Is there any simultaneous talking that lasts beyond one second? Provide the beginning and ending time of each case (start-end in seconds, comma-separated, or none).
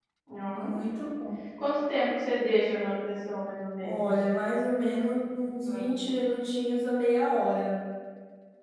none